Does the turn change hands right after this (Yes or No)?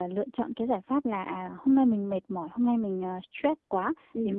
No